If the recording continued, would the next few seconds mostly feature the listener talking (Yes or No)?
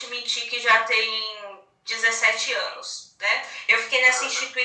No